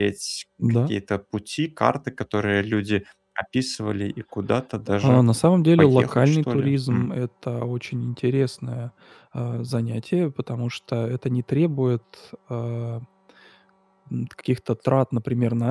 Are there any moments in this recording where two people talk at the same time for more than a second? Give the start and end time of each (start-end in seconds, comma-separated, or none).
5.8-7.1